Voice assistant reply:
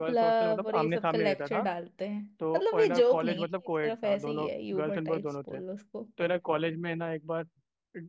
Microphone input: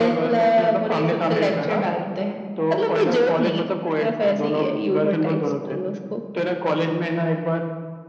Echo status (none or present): present